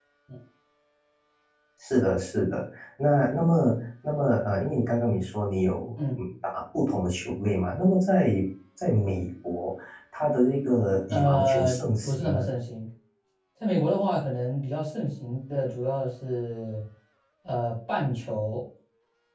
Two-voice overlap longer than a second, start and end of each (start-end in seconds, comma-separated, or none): 11.1-12.5